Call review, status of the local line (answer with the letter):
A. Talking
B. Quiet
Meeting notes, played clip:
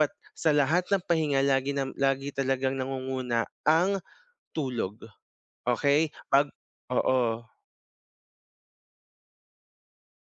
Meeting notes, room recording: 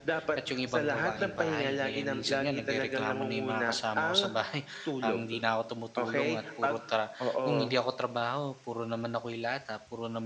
A